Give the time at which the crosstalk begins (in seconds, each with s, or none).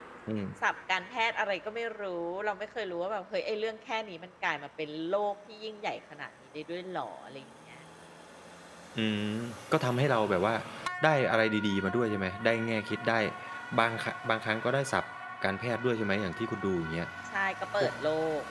none